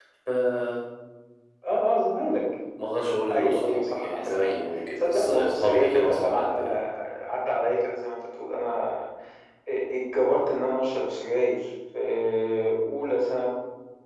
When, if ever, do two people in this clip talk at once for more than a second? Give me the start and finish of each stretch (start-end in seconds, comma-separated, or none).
3.3-4.5, 5.0-6.7